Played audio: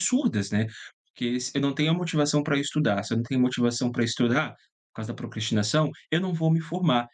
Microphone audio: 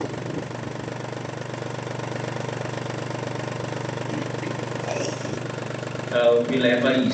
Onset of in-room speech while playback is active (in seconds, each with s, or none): 6.1 s